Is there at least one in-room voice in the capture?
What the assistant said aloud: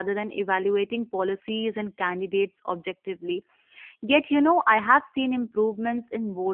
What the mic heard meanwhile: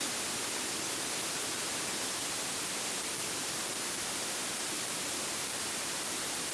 No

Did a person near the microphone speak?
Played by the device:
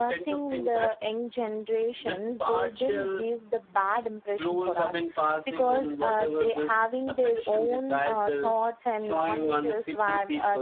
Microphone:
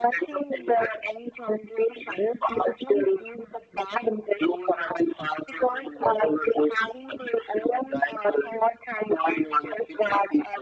No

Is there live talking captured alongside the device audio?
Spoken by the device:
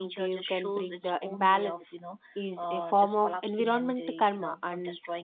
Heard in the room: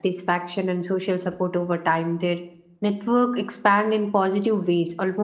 Yes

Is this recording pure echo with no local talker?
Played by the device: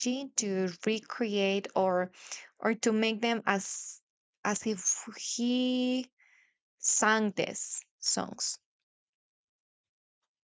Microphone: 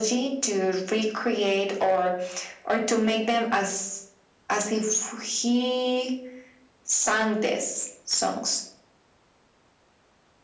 Yes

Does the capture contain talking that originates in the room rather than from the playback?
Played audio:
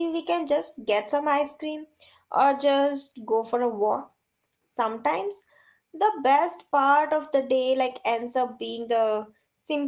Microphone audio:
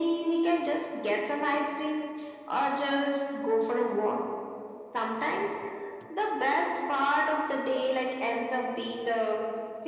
No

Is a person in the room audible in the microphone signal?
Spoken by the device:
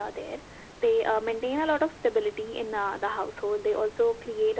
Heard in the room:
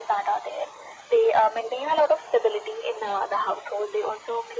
No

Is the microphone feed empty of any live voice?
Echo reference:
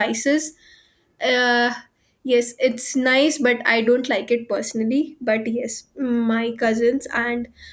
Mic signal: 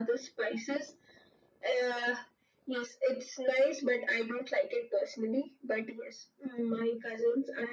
Yes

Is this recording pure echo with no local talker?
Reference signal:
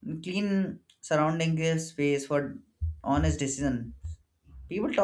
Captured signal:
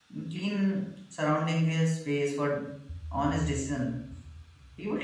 Yes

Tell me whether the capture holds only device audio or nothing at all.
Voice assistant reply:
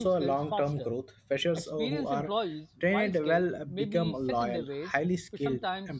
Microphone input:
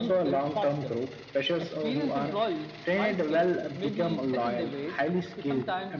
Yes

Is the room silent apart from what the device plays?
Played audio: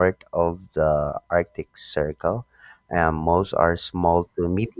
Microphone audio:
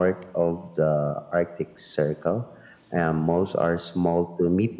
Yes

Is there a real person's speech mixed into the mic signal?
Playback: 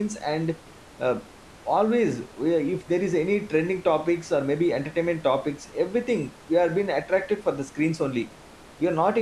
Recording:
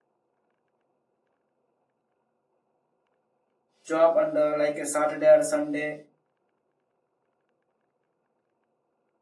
Yes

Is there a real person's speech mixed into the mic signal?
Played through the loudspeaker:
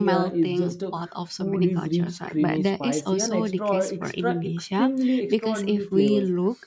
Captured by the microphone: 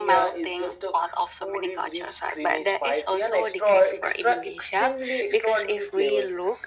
No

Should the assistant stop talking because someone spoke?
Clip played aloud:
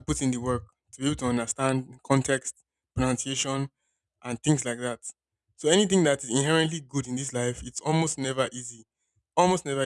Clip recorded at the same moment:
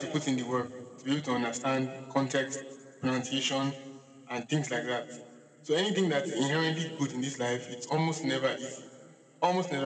No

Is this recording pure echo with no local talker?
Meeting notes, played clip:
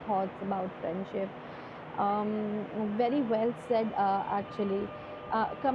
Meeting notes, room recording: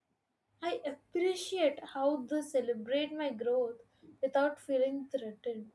No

